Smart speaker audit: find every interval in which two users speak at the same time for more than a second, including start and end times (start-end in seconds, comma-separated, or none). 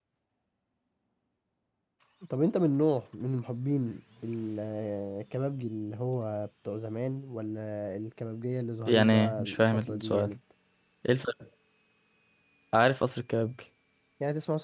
8.9-10.3